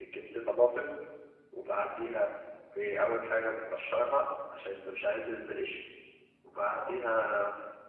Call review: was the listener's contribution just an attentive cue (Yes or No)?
Yes